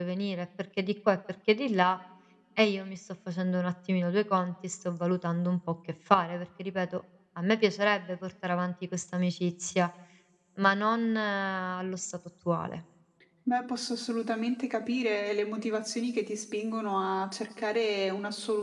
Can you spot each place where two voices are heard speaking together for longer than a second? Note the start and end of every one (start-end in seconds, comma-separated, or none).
none